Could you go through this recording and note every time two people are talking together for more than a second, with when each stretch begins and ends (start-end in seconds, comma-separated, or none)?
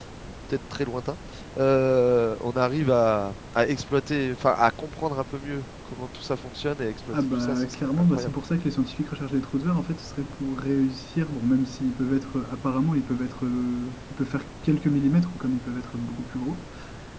7.1-8.3